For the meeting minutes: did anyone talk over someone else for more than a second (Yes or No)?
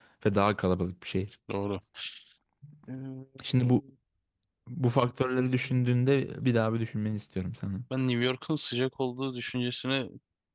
No